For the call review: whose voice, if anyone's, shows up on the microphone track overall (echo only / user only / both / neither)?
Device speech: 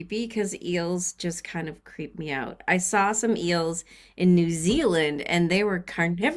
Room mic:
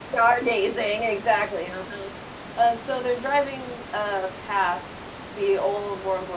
user only